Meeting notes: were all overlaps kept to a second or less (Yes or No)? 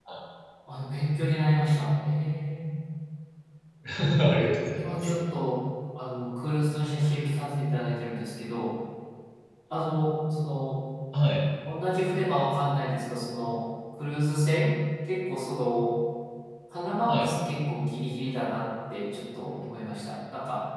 Yes